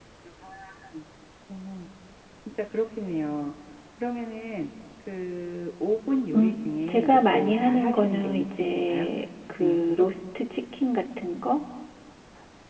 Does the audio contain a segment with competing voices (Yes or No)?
Yes